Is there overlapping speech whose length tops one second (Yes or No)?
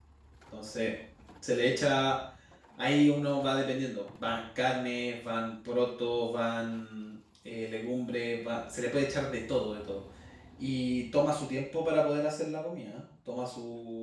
No